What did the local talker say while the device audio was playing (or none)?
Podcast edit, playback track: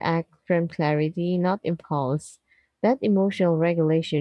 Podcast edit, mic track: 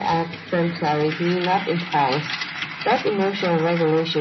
none